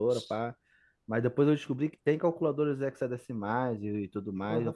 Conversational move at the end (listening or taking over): taking over